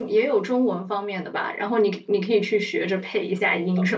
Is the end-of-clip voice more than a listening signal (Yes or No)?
Yes